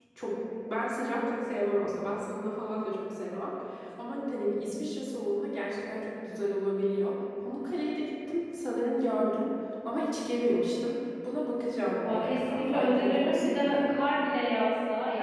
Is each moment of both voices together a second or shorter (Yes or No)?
No